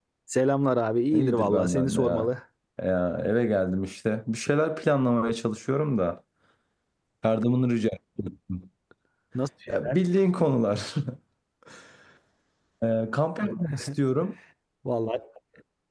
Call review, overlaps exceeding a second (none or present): present